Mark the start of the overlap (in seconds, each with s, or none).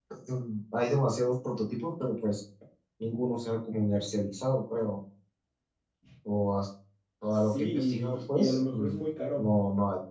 7.5 s